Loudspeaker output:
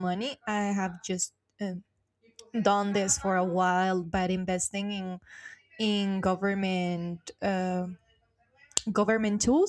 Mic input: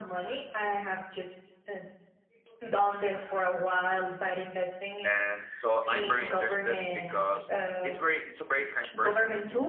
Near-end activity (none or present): present